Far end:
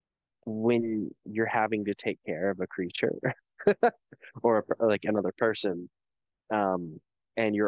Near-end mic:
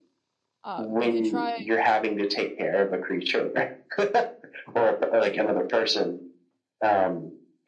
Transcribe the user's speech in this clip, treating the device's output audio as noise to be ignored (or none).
Um, if you try